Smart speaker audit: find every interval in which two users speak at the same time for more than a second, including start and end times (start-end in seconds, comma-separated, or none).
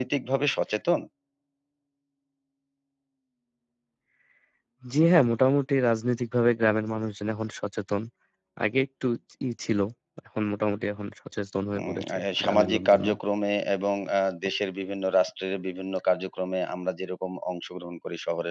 11.8-13.1